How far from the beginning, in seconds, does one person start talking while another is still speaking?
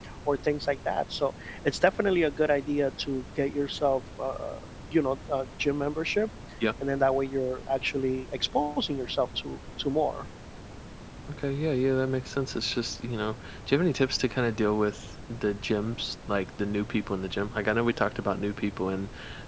none

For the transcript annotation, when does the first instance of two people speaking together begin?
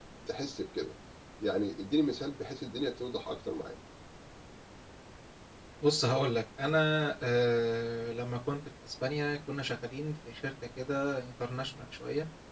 none

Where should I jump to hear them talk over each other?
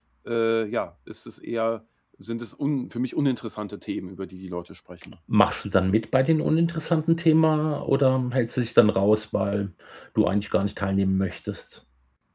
none

